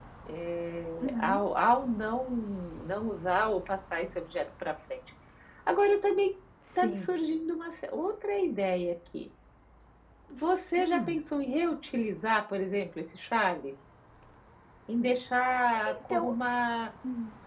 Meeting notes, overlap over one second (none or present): none